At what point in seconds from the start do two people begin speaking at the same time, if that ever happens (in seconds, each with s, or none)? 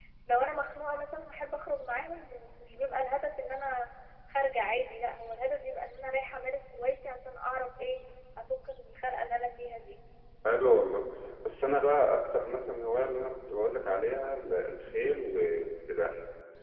none